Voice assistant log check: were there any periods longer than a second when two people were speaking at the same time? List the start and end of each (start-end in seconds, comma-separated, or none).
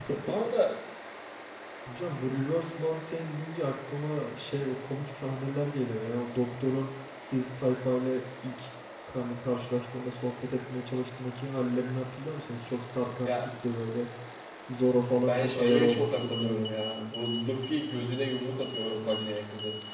15.2-16.5